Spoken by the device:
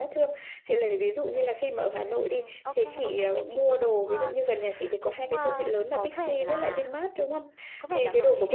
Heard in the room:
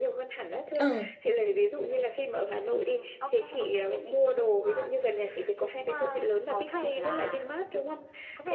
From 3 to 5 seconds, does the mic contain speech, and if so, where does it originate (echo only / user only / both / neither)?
echo only